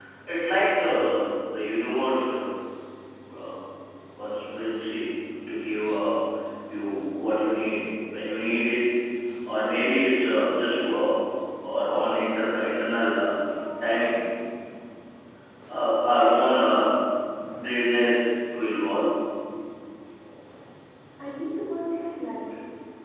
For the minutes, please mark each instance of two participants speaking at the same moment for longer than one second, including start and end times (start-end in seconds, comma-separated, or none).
none